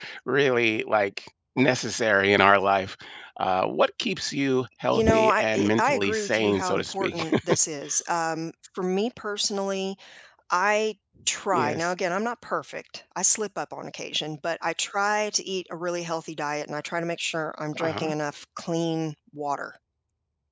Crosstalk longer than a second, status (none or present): present